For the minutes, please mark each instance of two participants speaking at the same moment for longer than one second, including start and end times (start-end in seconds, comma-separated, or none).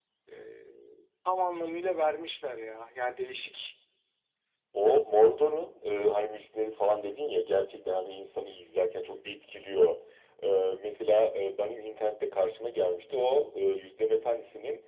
none